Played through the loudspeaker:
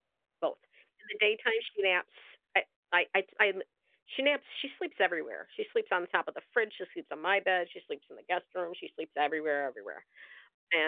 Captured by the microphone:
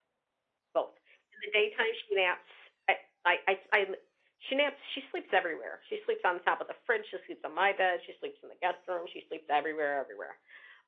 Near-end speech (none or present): none